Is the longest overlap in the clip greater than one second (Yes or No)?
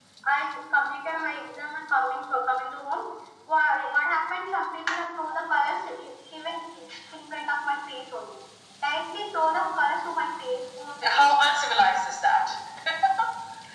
No